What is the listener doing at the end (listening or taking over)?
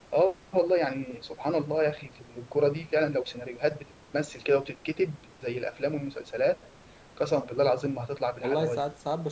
taking over